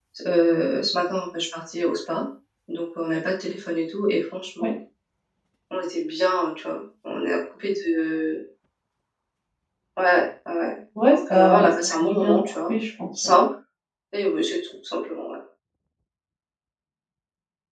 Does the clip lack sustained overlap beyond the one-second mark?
No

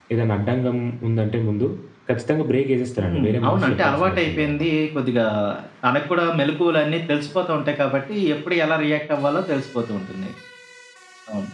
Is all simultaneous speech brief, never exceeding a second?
No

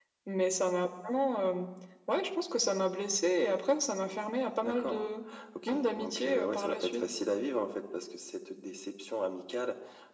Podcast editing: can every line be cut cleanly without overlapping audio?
No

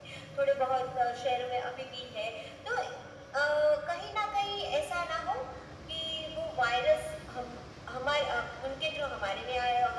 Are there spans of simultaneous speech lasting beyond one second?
No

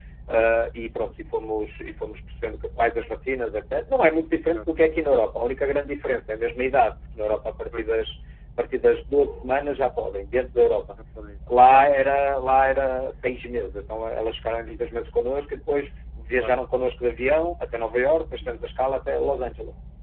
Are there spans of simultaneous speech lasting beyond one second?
No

